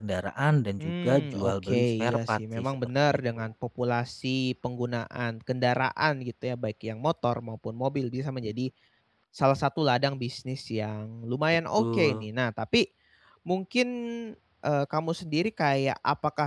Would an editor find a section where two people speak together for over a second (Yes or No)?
Yes